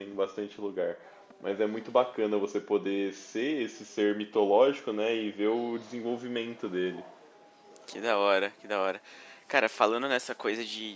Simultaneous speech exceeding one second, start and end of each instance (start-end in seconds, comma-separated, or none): none